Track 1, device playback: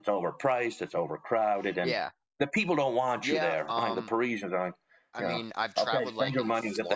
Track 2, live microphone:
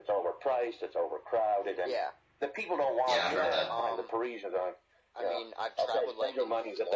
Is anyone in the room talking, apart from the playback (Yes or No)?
Yes